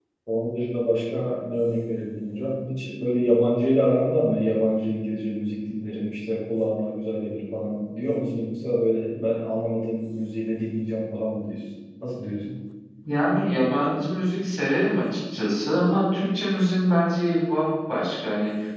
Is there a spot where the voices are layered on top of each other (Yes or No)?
No